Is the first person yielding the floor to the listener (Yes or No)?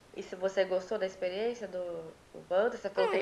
Yes